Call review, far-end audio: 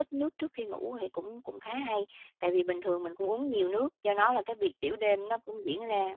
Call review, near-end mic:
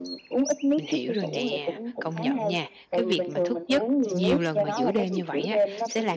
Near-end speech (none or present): present